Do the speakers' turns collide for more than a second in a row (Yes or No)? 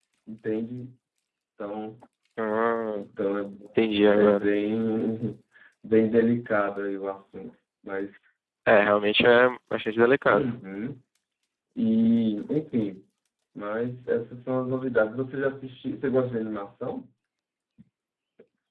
No